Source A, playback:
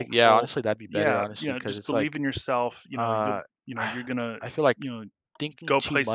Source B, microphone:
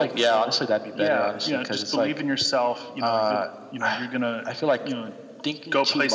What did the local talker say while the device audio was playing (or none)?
none